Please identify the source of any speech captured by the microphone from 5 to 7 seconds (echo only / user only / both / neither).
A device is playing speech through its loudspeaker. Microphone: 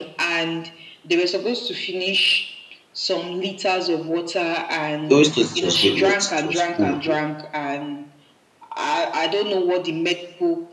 both